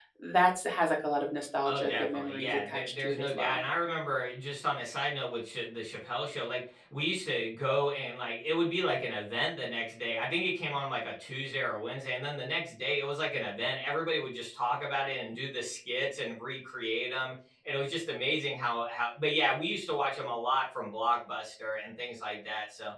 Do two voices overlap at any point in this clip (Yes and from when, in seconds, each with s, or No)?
Yes, from 1.6 s